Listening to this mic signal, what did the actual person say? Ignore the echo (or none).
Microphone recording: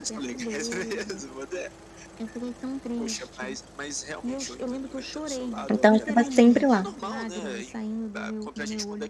Então eu estava sempre lá.